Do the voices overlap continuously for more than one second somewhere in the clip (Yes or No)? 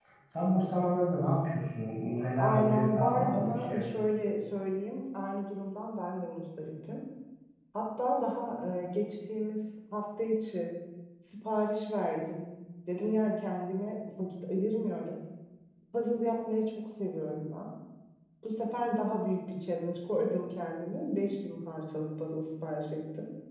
Yes